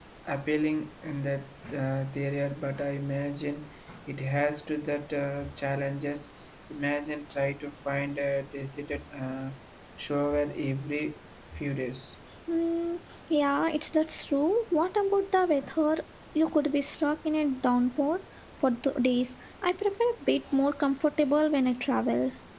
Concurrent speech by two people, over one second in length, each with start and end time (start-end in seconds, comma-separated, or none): none